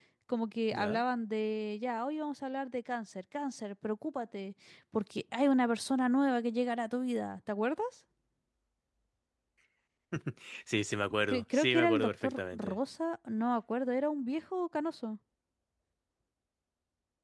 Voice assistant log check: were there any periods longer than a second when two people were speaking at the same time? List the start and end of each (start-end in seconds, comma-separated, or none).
11.3-12.8